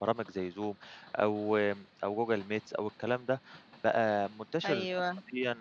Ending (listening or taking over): listening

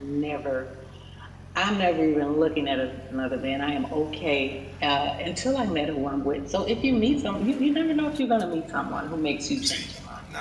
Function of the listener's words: taking over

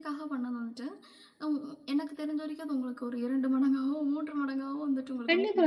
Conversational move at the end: taking over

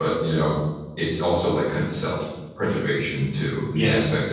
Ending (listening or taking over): listening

